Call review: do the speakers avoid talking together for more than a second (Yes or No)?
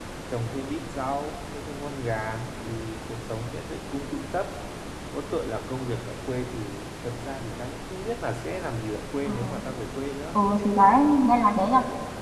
Yes